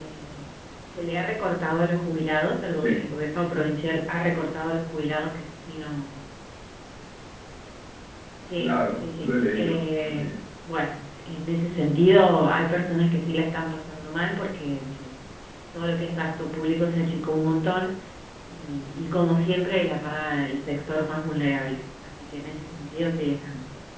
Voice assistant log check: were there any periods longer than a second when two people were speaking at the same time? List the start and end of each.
8.6-10.3

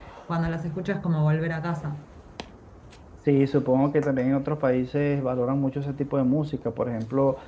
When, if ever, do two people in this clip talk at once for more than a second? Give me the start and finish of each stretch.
none

